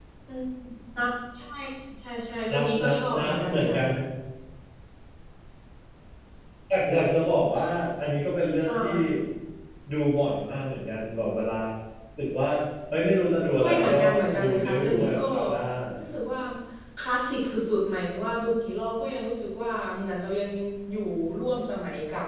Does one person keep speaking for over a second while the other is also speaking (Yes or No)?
Yes